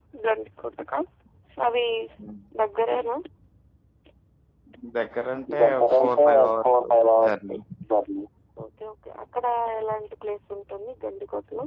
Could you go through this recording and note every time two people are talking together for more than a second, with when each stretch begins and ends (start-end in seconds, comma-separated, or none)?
5.6-6.9